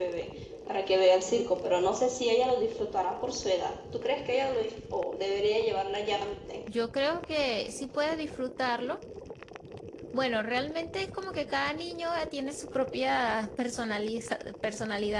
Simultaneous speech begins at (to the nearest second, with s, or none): none